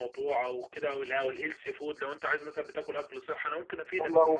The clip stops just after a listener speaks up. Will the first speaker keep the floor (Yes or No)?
No